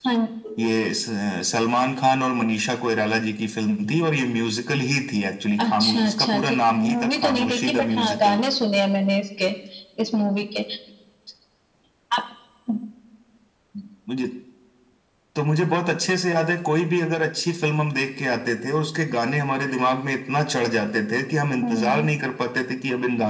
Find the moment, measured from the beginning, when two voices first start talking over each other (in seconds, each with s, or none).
5.6 s